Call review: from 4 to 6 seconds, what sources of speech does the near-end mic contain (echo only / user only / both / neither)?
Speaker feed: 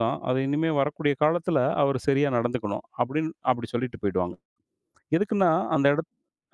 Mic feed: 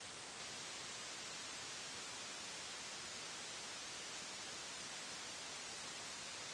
neither